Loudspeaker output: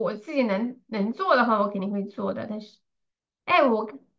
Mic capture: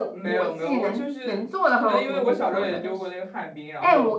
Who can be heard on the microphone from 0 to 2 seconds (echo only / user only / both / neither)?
both